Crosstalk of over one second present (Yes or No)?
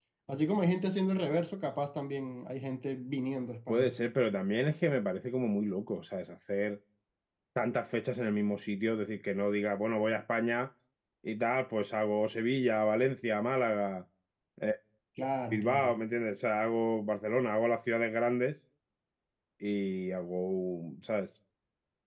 No